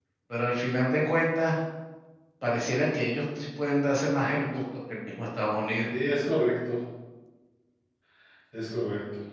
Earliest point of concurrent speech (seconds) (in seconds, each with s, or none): none